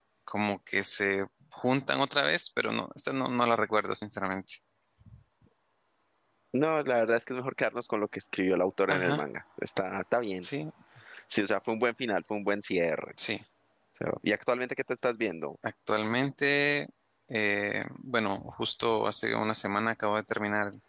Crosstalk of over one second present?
No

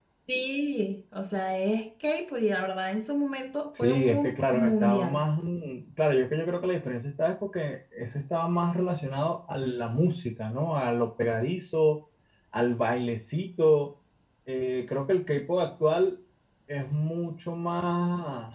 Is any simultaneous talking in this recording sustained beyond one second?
Yes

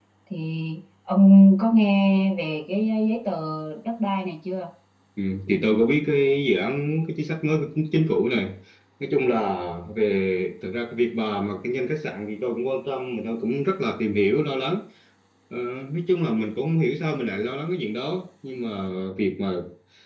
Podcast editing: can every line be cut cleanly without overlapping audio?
Yes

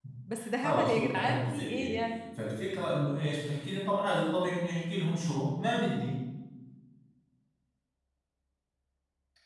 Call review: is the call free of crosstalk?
No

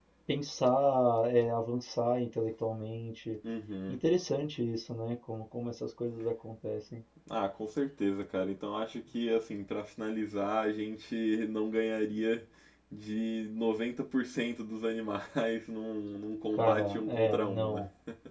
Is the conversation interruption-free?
No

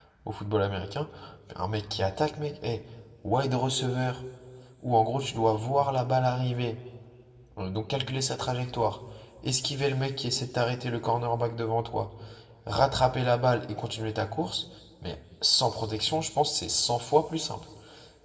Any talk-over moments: No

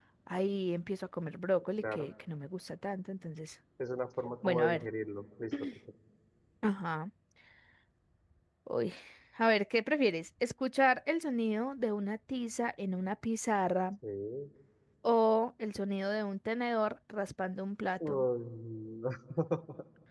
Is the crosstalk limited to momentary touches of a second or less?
Yes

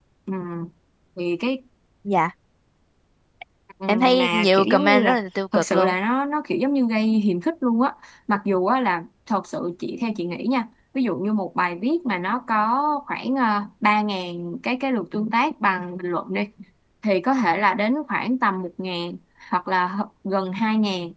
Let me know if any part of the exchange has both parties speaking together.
Yes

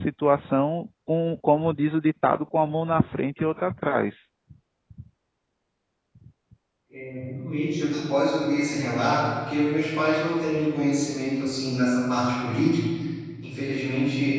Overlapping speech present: No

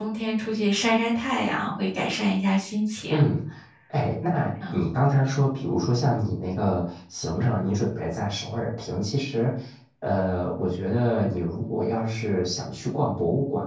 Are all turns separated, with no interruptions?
Yes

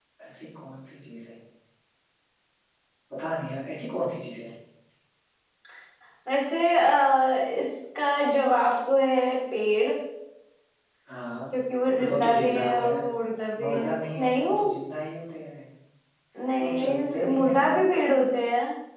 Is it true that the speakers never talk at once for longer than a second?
No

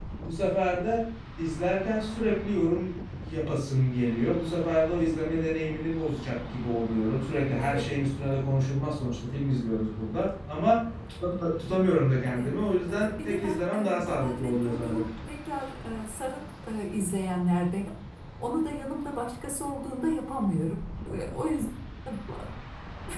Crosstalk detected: Yes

